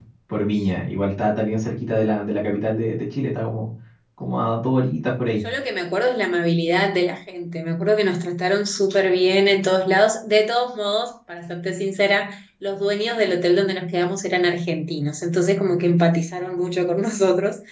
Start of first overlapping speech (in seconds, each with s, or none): none